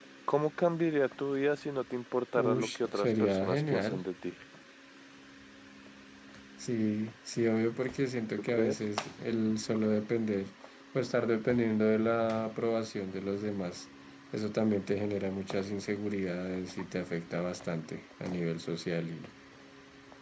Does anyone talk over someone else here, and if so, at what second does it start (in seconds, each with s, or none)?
2.4 s